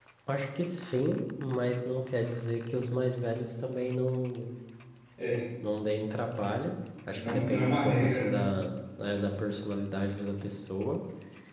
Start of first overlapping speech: 7.2 s

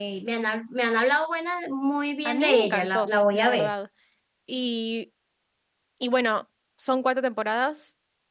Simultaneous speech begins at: 2.2 s

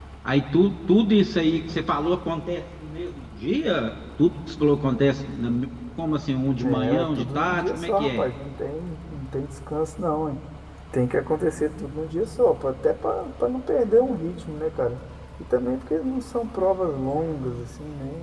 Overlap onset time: 6.6 s

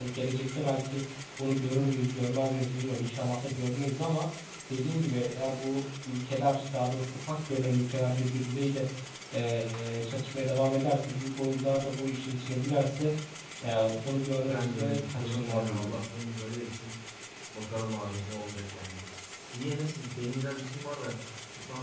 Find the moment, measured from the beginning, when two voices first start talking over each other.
14.4 s

